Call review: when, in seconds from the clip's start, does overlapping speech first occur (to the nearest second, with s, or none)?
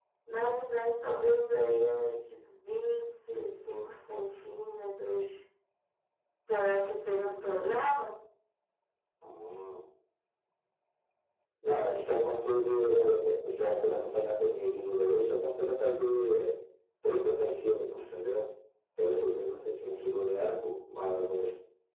none